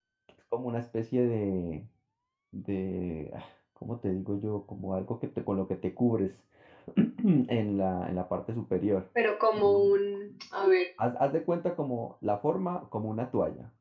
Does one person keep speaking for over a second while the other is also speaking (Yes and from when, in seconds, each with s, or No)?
No